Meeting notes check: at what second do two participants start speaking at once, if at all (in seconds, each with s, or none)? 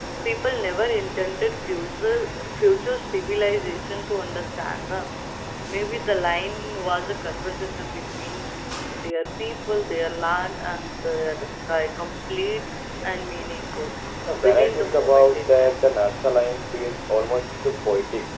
14.5 s